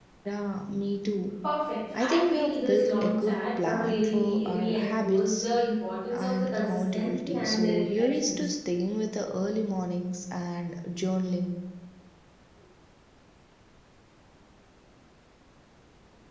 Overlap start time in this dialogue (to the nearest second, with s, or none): 2 s